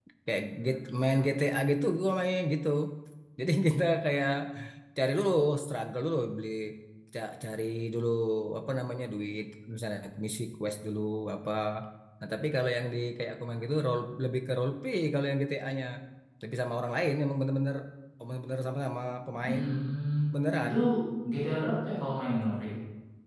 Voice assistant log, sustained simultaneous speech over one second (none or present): none